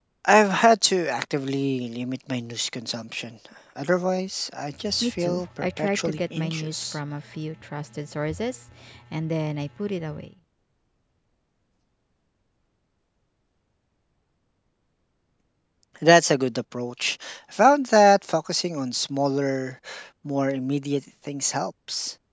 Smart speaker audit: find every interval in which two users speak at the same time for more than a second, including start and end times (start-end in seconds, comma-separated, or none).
5.0-7.0